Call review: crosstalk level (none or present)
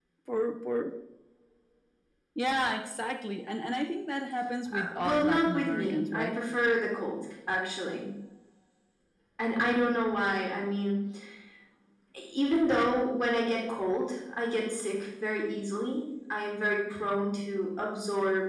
present